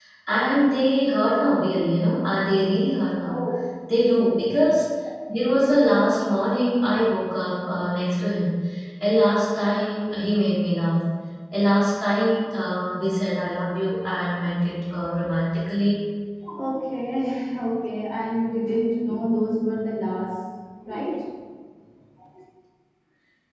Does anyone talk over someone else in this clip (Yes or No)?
No